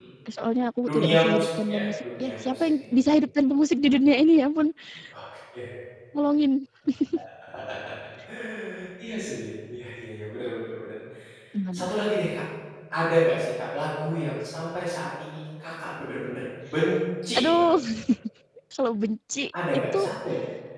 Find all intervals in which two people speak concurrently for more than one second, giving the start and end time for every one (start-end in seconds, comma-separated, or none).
0.8-2.9